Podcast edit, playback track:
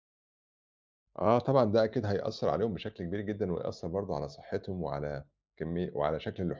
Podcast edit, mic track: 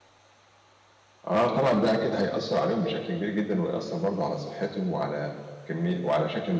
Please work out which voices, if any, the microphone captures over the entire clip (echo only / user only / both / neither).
echo only